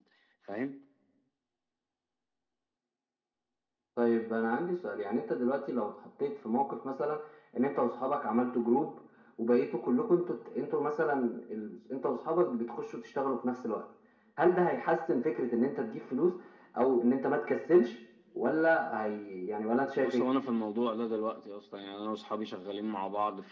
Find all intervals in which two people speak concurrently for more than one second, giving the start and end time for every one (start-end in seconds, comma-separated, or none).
none